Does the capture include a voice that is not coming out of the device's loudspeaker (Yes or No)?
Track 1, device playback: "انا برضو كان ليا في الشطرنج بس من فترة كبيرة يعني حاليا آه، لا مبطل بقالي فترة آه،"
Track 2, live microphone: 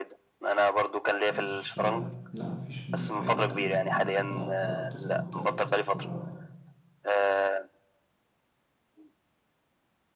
Yes